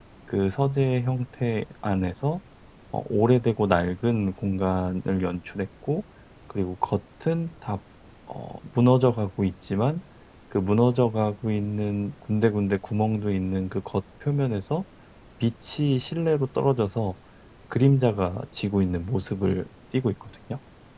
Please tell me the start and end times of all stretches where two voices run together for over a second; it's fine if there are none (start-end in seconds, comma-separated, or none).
none